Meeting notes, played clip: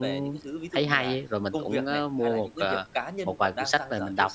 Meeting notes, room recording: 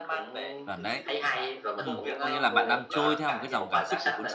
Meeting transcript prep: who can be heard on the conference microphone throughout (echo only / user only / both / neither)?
both